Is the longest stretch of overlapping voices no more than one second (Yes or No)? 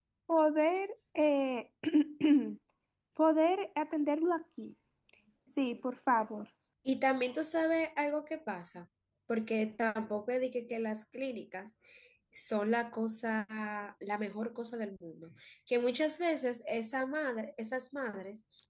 Yes